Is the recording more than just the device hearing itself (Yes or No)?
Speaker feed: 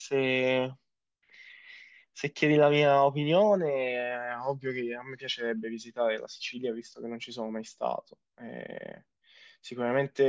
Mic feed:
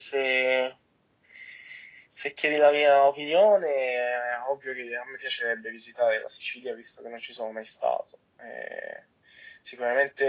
No